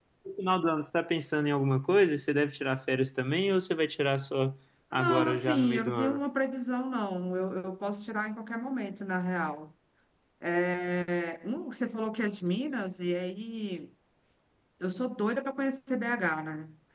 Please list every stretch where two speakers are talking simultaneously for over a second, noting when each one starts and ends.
4.9-6.2

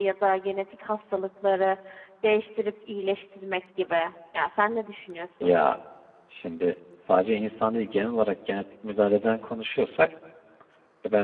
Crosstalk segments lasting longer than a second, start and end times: none

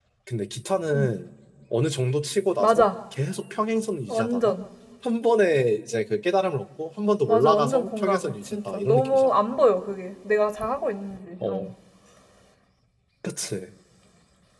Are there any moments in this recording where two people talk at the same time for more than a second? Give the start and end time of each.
7.3-9.3

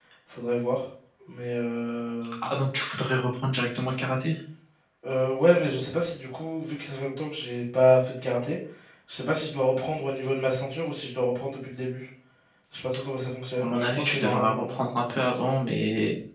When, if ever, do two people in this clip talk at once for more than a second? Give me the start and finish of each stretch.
13.6-14.8

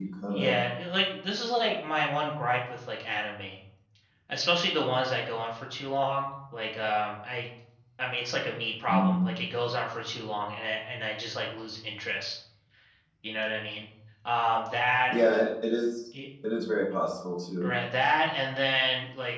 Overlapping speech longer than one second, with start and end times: none

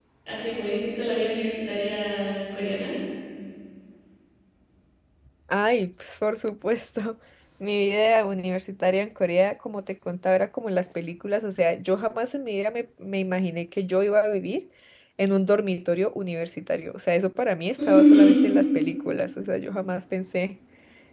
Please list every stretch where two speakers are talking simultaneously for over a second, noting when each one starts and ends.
none

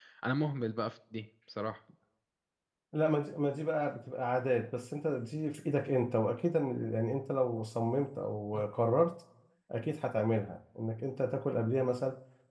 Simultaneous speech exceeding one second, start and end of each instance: none

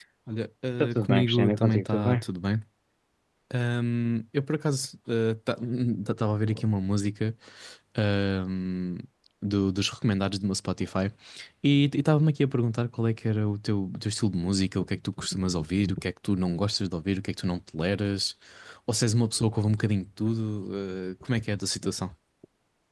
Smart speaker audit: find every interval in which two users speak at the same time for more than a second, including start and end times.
0.8-2.2

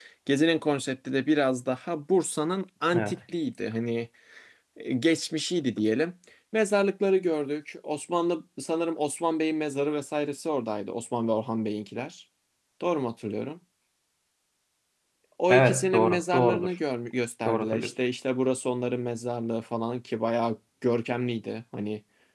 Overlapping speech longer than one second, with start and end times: 15.5-16.7

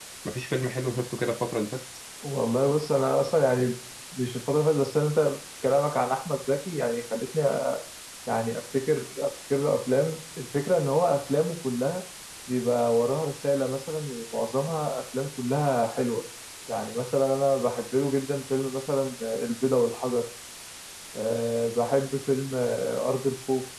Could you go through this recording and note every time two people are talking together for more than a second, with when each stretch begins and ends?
none

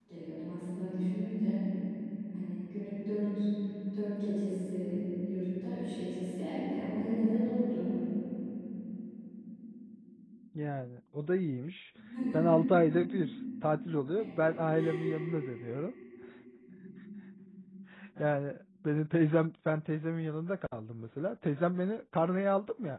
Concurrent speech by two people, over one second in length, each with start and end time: none

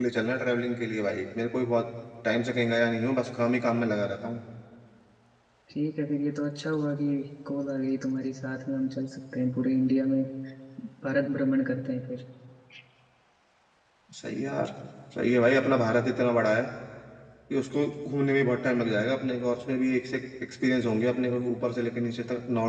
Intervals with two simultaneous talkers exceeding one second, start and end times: none

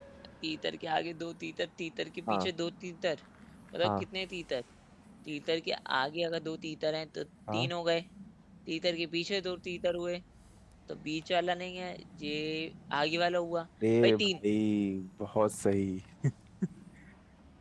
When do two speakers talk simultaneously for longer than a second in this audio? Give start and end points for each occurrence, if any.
none

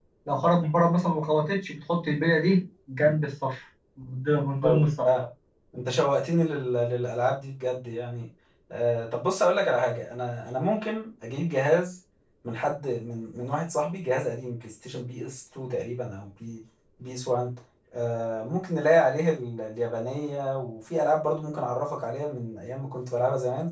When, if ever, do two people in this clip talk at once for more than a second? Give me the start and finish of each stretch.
none

